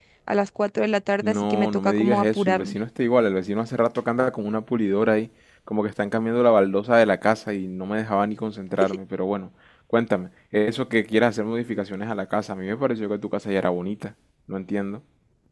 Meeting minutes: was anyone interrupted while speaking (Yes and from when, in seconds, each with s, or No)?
Yes, from 1.2 s